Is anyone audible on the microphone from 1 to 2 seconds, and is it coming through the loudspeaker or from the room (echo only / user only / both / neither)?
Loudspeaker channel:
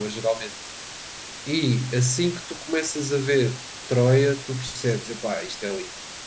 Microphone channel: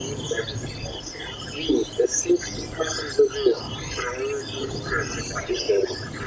echo only